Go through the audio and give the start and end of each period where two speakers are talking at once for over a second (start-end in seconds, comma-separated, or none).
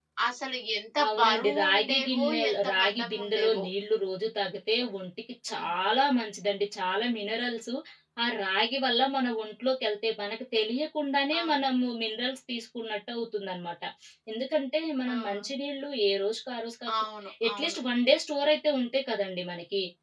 1.1-3.6